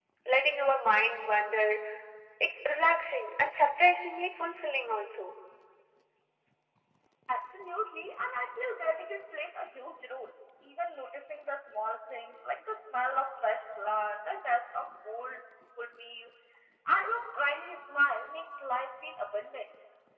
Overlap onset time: none

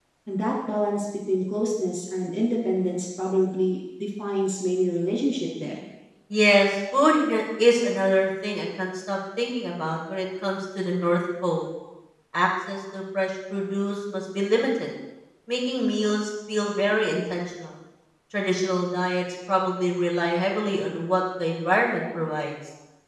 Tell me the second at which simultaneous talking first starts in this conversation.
none

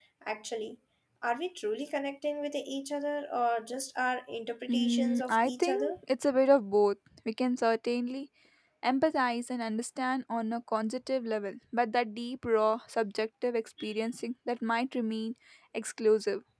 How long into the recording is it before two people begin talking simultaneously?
4.7 s

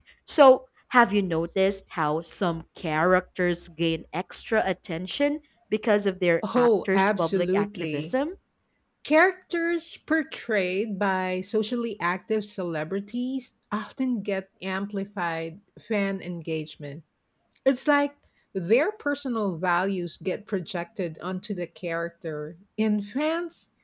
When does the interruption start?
6.4 s

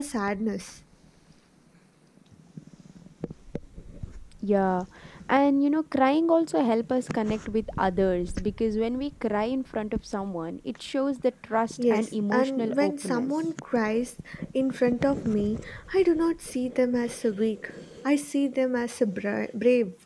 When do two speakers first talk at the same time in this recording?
11.8 s

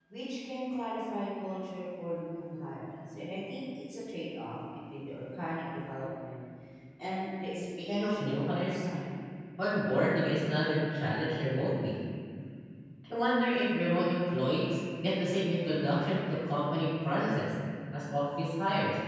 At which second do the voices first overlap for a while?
7.5 s

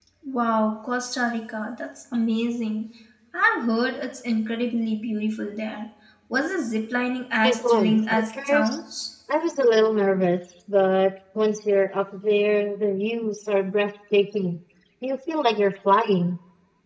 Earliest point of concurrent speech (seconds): 7.4 s

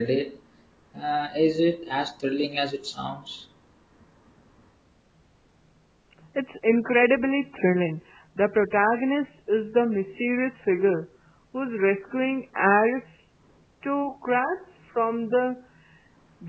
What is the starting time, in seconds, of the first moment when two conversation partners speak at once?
none

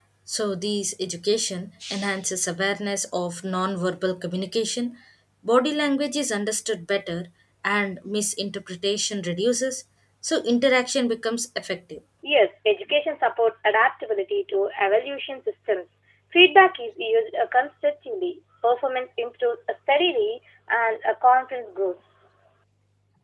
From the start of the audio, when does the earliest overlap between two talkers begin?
none

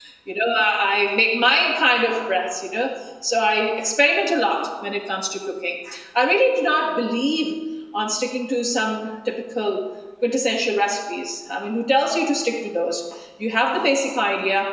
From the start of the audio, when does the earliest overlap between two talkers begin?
none

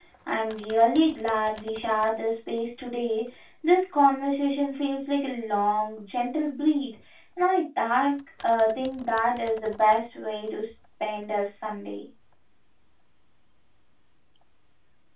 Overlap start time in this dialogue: none

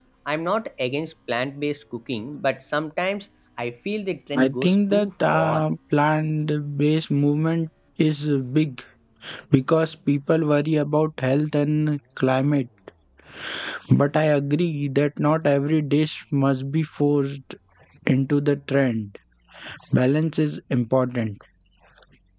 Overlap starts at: 4.3 s

